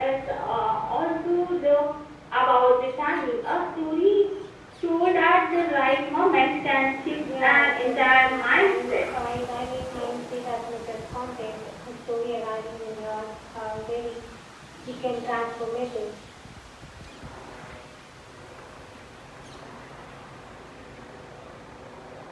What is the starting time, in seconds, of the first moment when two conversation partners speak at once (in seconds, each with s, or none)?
7.4 s